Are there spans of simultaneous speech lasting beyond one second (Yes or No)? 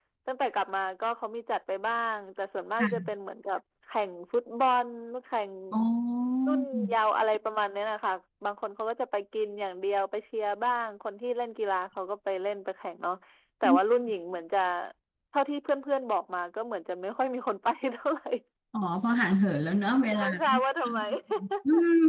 No